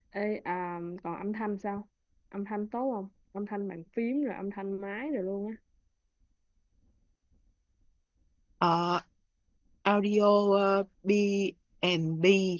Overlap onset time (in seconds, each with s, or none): none